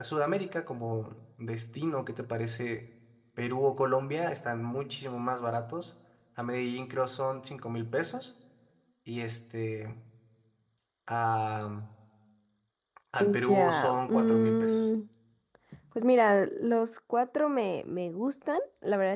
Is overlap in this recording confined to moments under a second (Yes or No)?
No